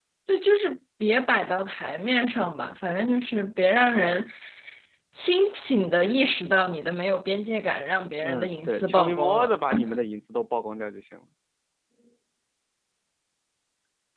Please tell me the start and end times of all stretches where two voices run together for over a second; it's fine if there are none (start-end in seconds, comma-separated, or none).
8.2-9.5